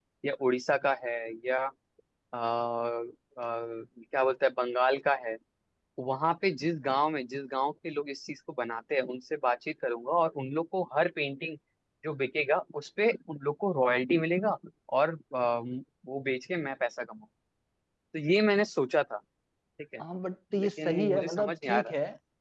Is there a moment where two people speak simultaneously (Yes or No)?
Yes